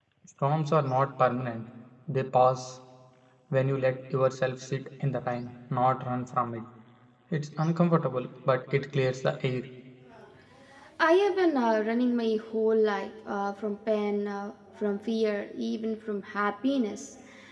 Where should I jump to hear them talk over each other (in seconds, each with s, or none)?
none